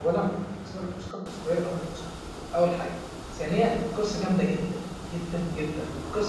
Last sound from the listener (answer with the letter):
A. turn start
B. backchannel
B